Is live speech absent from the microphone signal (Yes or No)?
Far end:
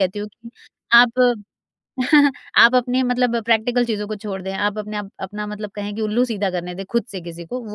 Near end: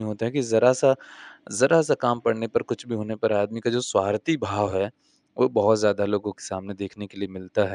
No